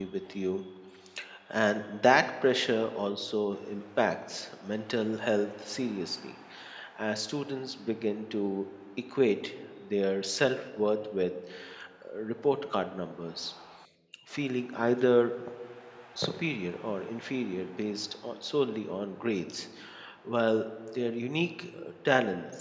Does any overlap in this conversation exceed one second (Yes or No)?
No